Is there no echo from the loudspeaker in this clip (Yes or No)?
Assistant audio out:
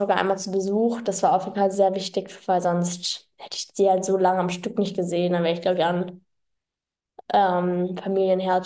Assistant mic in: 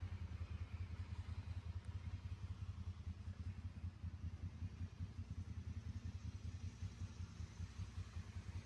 Yes